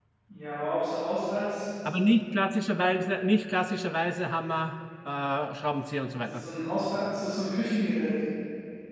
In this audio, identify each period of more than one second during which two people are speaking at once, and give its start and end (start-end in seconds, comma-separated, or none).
none